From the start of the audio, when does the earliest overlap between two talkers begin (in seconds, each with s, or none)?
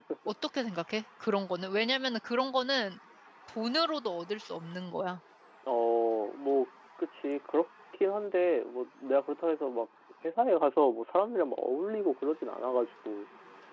none